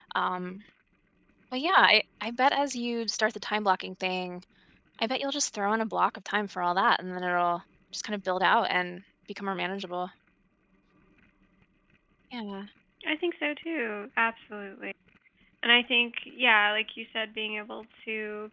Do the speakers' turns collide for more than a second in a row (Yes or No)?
No